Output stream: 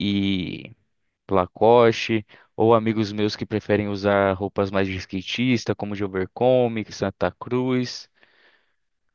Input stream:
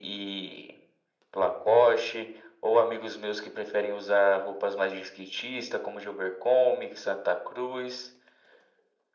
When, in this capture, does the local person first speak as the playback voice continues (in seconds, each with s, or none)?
none